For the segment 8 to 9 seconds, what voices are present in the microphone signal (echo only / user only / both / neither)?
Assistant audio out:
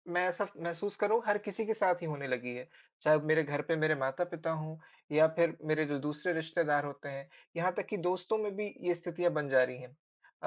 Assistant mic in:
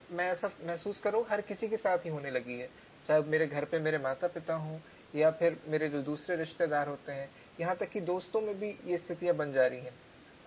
echo only